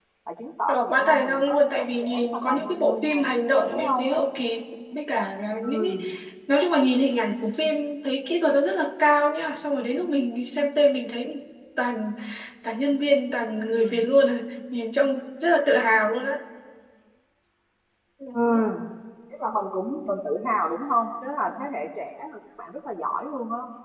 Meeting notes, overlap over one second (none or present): present